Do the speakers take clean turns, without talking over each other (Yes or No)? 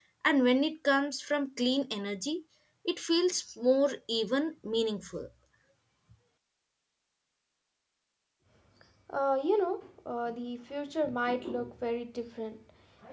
Yes